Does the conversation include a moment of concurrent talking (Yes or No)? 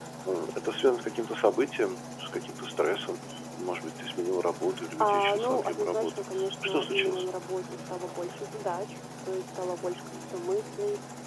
Yes